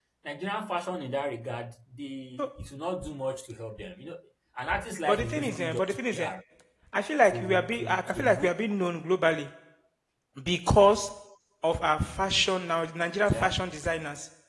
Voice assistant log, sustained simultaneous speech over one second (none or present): present